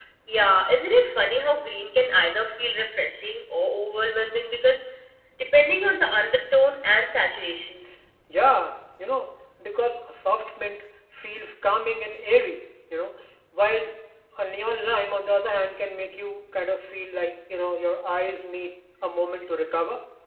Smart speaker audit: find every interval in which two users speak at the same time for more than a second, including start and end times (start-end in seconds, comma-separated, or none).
none